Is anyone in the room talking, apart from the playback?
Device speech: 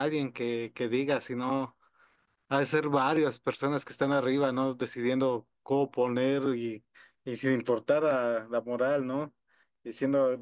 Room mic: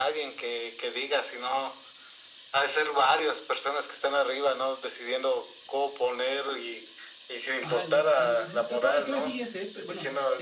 Yes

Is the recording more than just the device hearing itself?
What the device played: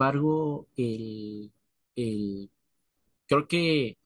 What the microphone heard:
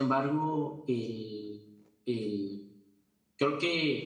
No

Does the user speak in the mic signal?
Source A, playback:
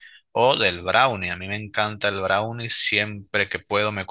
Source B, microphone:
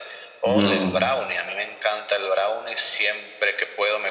Yes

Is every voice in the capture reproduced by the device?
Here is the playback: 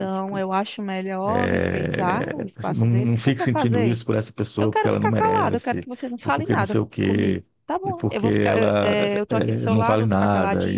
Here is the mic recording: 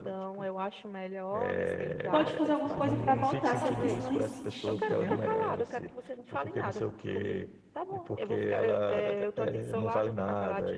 No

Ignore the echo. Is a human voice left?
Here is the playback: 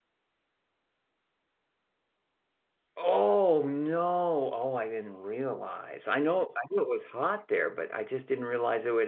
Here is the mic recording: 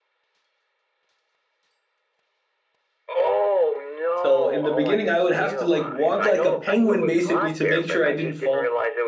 Yes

